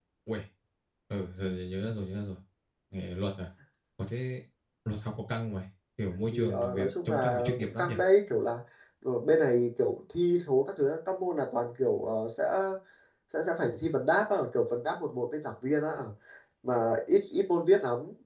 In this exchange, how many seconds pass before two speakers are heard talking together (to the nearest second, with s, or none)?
6 s